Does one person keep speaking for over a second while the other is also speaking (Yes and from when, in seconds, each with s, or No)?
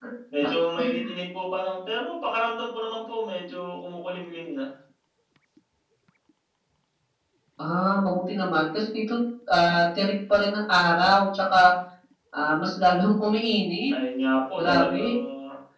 No